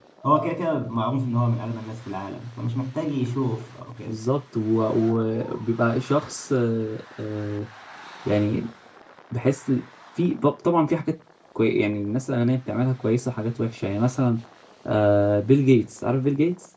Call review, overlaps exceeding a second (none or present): none